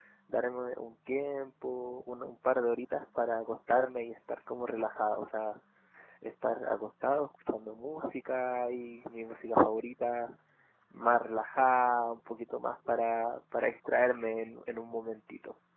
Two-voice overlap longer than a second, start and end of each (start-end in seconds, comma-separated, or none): none